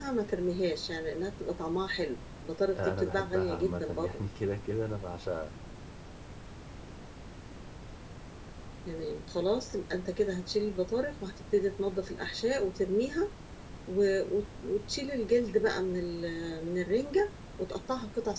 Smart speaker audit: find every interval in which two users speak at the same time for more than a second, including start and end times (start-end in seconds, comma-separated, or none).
2.8-4.2